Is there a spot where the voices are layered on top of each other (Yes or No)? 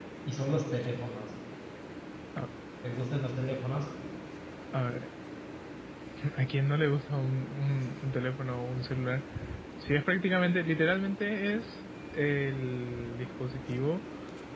No